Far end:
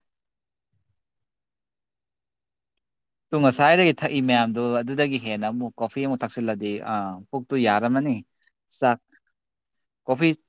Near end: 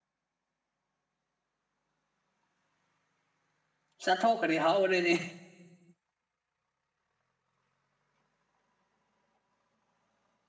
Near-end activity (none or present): present